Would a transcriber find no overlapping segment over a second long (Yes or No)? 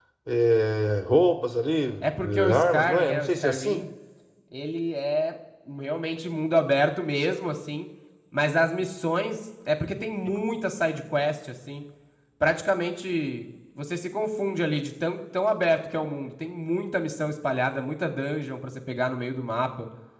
No